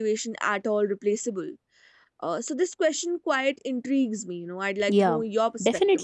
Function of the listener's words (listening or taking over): taking over